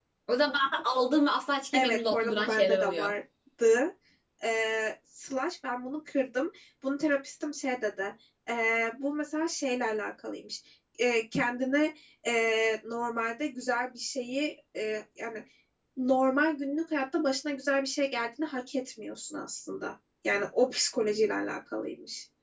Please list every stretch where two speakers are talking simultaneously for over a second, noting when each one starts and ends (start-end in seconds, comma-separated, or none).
1.7-3.1